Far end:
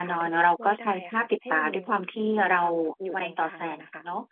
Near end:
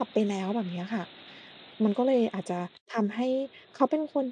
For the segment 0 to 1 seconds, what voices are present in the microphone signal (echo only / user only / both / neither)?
user only